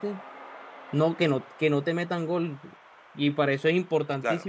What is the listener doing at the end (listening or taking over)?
listening